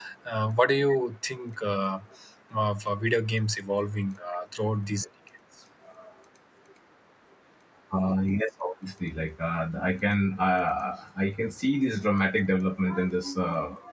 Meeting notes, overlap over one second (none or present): none